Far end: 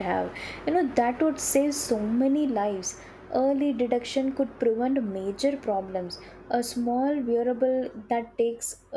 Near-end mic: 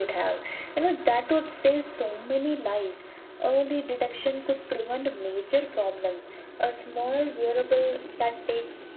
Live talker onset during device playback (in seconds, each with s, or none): none